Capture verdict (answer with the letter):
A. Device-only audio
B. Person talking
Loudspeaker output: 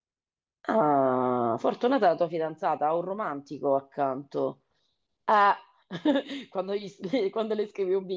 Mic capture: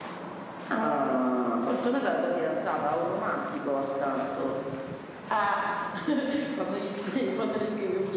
A